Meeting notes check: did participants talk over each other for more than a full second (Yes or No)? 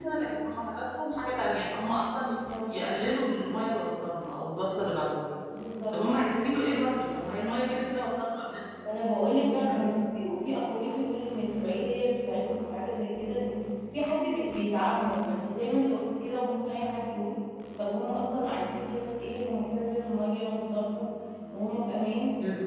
No